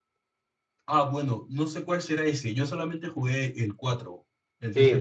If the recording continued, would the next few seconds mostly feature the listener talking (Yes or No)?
Yes